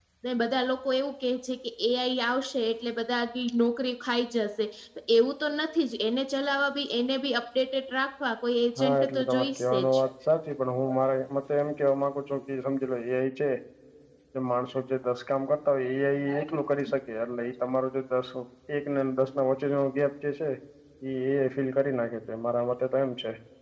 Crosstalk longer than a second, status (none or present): present